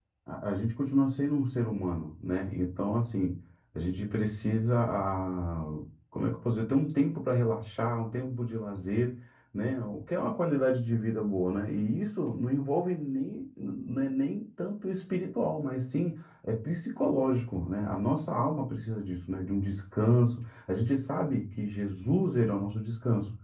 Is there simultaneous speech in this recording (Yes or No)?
No